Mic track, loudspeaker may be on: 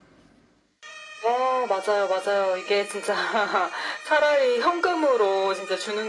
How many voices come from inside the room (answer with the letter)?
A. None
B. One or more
A